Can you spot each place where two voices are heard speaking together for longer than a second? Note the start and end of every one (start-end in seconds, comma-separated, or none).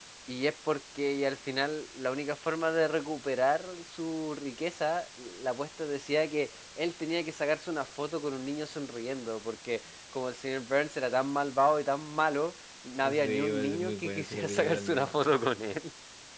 13.0-15.4